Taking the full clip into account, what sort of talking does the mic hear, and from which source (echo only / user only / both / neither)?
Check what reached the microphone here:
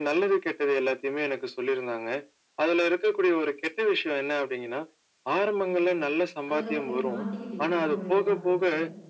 both